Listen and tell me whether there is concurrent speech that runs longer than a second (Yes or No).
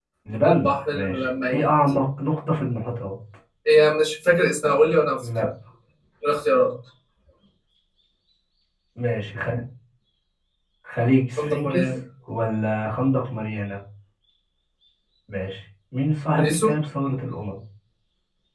Yes